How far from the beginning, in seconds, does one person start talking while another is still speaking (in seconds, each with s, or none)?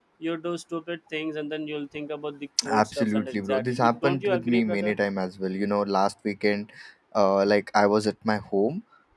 2.6 s